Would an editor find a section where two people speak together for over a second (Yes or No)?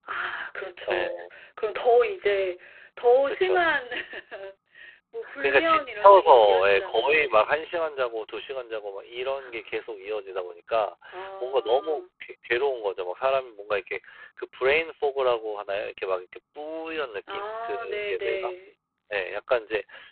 Yes